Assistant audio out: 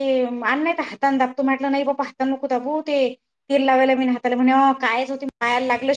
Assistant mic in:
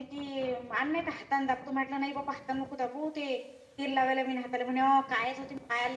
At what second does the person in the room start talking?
none

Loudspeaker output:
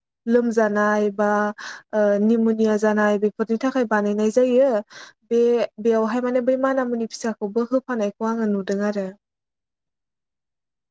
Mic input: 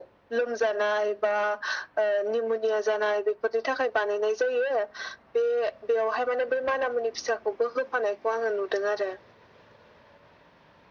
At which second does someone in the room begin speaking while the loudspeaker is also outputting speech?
none

